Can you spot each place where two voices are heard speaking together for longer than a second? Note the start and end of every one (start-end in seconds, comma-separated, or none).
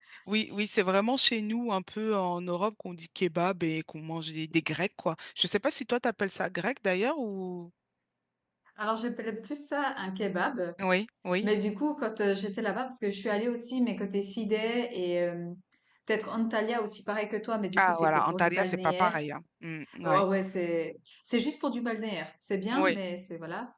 17.7-19.2